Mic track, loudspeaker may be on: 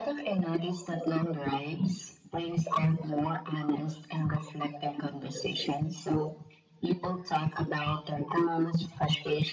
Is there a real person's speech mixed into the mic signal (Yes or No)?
No